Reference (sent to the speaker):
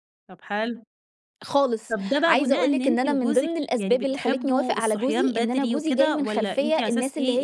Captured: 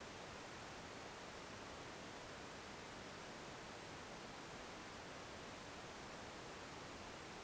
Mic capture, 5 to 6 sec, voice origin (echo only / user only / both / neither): neither